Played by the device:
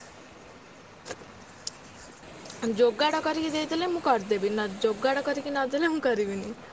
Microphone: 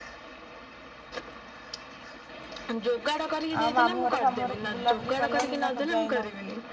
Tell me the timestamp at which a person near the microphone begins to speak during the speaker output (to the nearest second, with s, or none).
4 s